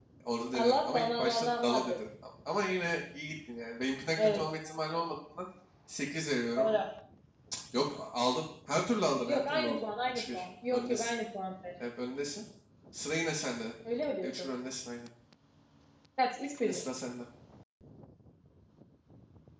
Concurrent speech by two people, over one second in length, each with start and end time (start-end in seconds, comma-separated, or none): 0.5-1.9, 9.2-11.2